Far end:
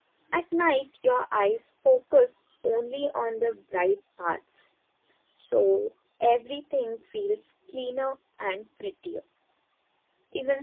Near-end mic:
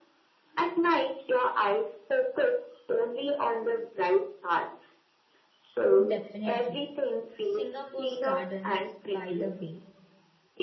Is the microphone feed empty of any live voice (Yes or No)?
No